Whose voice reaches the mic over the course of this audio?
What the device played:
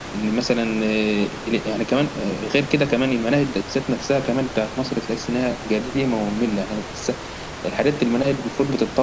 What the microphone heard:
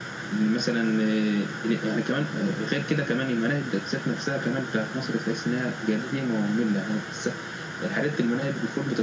echo only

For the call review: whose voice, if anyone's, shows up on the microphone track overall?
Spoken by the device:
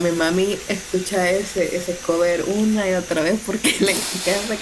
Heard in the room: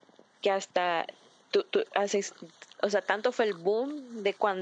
user only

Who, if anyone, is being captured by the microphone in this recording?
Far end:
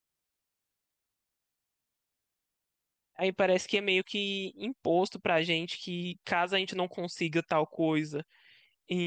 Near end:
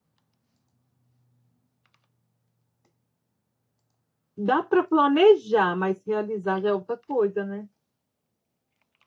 user only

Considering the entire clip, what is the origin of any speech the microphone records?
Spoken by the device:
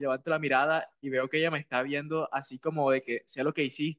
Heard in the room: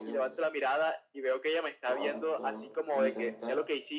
both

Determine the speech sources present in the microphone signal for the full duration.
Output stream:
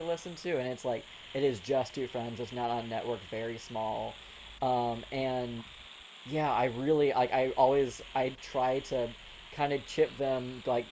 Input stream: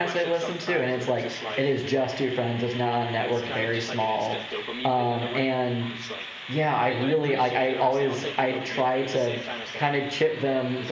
both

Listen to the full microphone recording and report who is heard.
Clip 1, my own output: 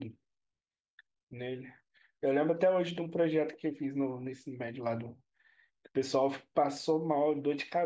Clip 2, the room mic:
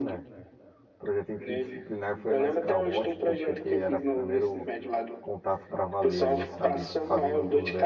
both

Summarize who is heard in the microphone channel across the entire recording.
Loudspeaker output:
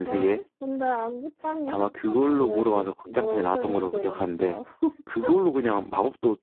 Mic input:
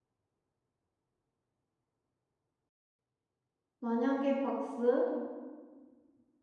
user only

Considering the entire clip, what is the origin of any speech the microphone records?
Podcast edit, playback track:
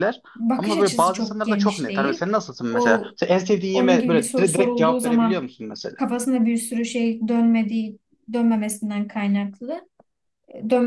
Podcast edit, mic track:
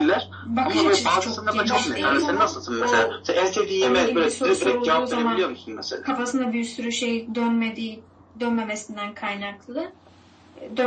both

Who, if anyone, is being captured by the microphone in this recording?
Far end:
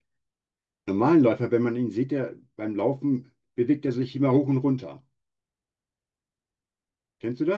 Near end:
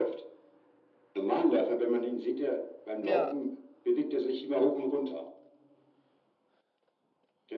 both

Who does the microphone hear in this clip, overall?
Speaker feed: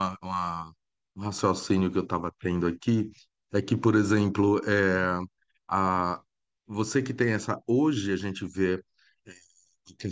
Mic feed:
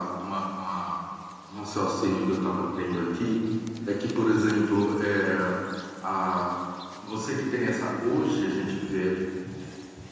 echo only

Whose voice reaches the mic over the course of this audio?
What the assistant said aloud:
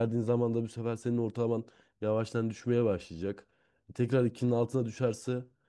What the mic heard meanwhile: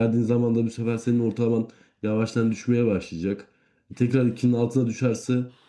echo only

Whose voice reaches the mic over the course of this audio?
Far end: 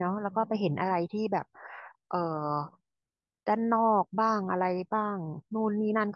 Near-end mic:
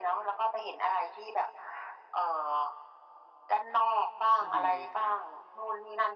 both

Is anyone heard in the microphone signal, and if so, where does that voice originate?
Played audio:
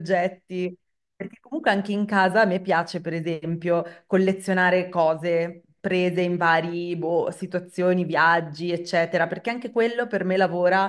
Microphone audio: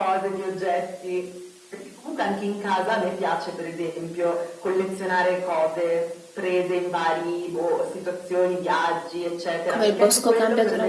both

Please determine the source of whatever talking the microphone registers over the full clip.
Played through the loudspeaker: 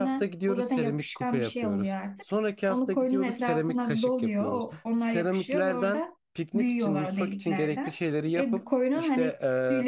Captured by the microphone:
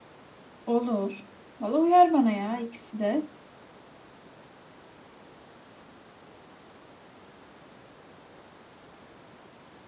user only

